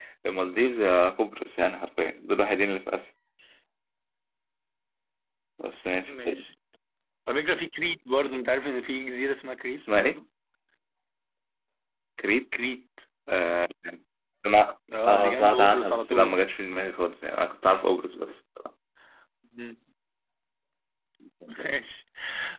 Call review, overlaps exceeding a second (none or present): present